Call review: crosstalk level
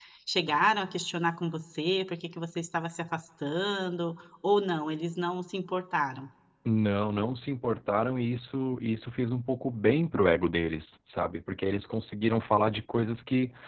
none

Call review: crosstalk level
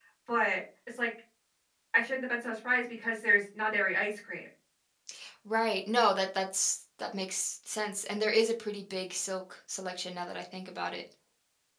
none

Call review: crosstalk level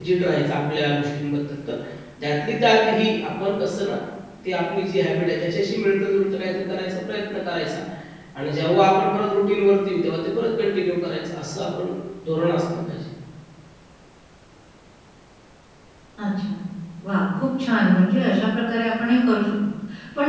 none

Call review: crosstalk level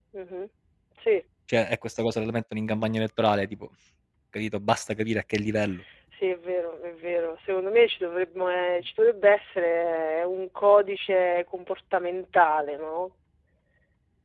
none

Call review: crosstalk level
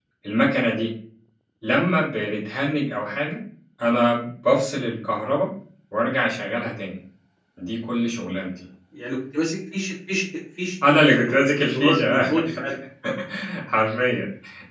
present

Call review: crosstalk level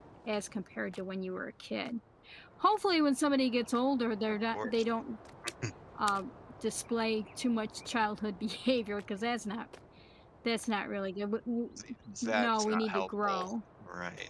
present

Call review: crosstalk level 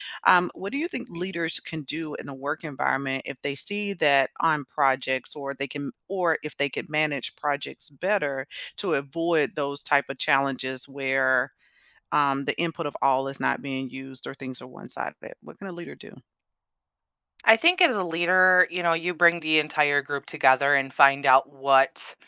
none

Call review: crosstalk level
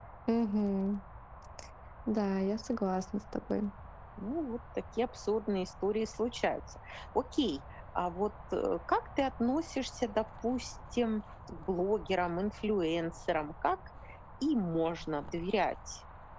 none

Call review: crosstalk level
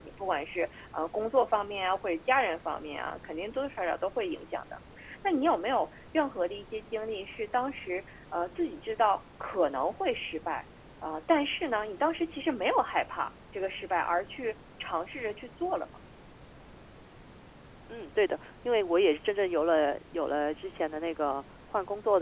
none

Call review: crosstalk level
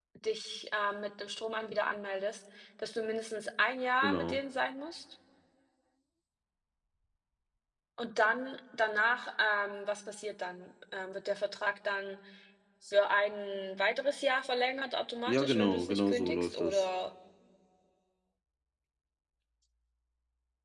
present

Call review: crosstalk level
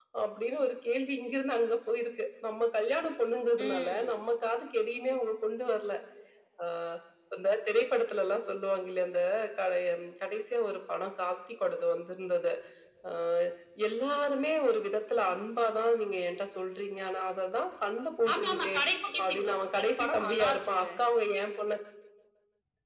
present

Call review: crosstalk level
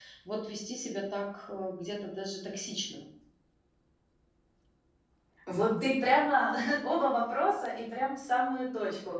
none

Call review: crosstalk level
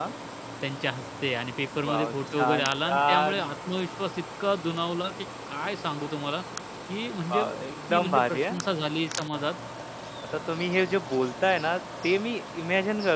present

